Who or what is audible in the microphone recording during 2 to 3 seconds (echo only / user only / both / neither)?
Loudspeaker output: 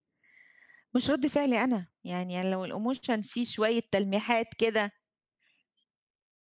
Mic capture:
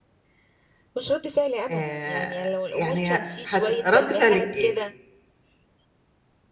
both